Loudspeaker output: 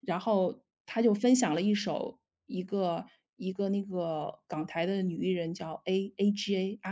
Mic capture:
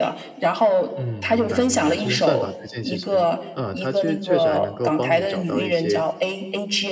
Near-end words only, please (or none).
嗯，明白明白，就是算法推荐其实呃，它确确实还能够帮你找到一些